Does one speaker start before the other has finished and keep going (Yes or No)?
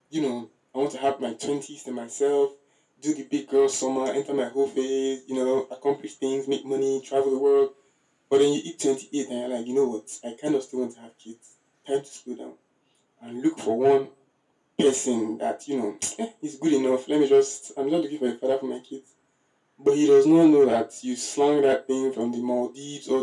No